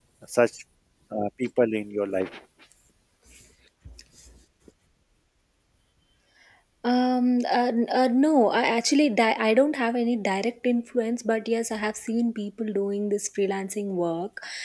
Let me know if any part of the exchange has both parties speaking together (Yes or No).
No